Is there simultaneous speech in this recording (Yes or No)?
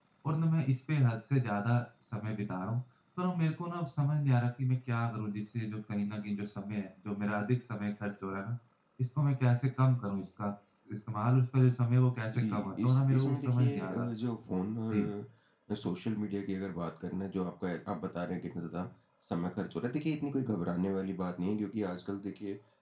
Yes